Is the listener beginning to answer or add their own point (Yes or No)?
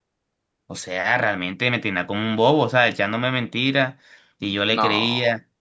No